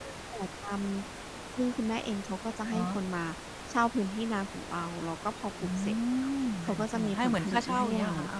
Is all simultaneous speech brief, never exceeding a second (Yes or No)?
No